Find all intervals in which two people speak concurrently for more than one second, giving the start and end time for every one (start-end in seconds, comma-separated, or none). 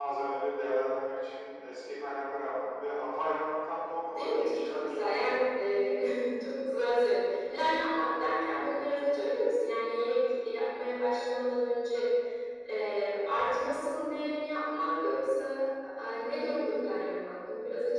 4.1-5.5